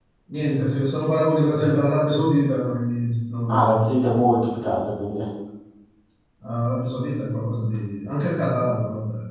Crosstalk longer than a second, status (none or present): none